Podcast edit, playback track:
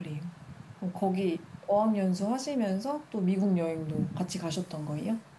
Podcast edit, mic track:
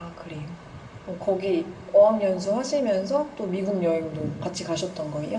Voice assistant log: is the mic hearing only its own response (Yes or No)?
Yes